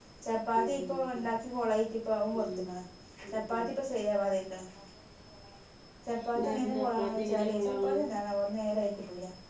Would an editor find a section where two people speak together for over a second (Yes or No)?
Yes